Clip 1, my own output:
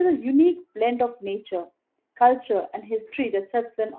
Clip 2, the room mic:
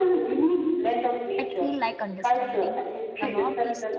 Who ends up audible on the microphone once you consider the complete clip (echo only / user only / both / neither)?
both